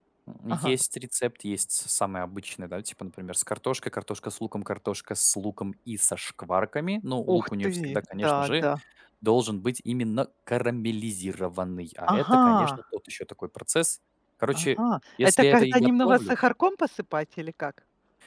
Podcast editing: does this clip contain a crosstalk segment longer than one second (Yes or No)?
Yes